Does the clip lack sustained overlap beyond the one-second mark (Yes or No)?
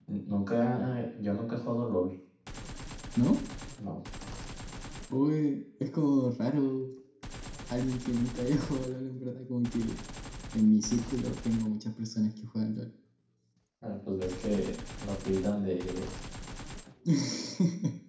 Yes